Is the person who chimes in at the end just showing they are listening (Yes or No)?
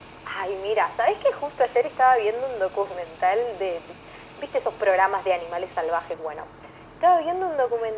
Yes